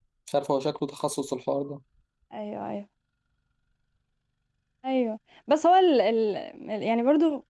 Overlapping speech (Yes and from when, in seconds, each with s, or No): No